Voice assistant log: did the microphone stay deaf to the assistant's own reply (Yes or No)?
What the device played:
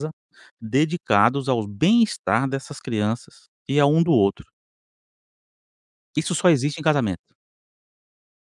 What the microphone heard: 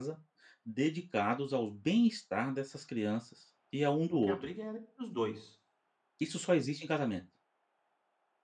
No